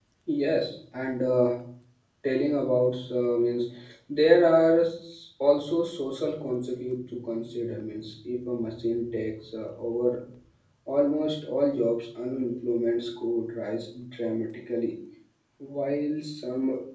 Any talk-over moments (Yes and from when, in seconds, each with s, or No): No